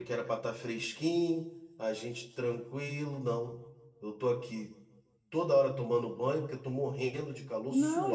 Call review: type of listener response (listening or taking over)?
taking over